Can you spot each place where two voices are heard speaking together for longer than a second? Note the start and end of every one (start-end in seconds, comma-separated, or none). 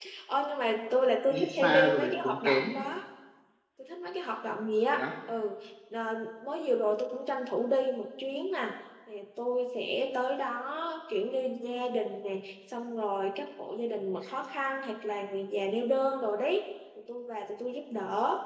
1.3-2.6